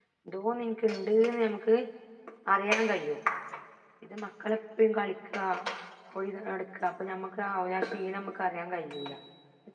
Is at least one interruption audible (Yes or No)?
No